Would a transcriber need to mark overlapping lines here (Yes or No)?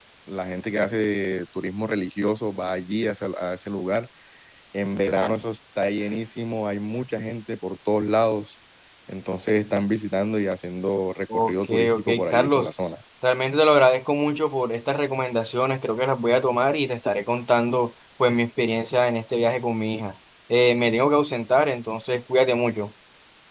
Yes